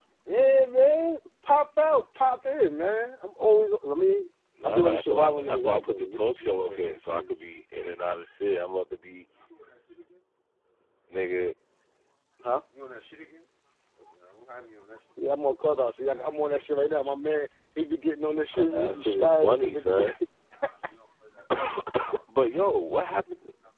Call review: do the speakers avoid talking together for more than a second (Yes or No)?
No